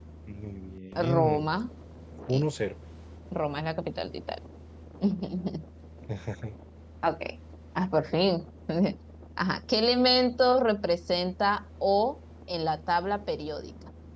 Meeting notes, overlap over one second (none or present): none